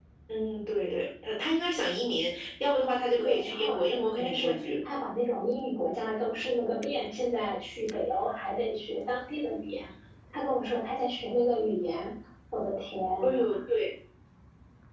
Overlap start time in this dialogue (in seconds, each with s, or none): 3.1 s